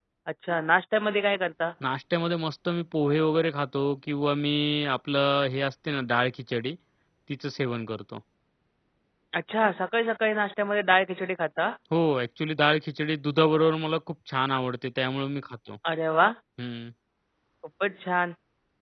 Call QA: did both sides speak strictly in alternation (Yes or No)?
Yes